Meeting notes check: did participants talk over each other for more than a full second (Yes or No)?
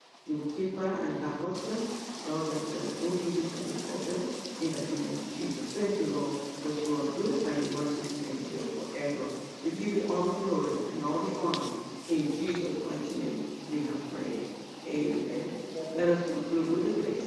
No